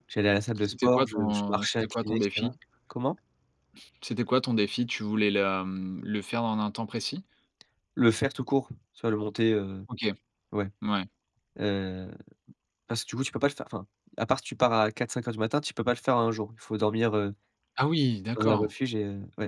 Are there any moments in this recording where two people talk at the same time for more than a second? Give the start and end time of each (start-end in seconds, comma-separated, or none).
0.7-2.5